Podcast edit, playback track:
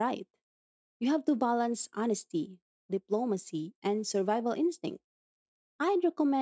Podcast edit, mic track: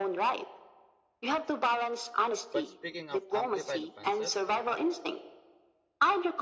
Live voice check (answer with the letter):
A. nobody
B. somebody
B